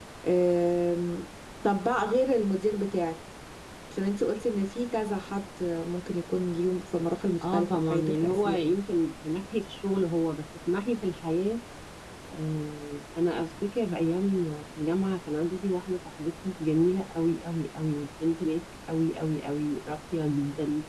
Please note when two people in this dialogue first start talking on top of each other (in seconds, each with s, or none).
7.4 s